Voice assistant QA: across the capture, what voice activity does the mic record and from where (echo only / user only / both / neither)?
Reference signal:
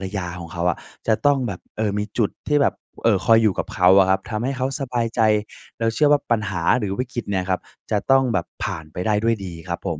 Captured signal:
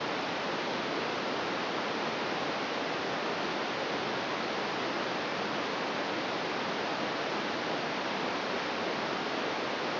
neither